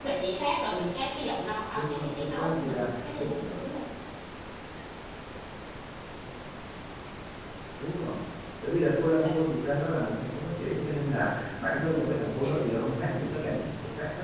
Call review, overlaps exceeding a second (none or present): present